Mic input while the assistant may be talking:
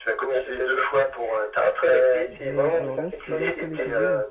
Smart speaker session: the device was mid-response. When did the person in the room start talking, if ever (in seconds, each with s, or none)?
2.3 s